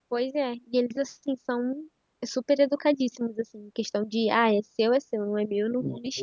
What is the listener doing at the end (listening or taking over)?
taking over